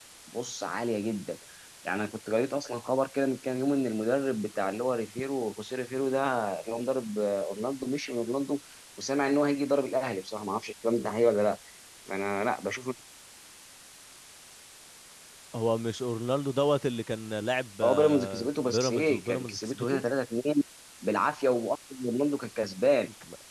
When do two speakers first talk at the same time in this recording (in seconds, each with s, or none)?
17.8 s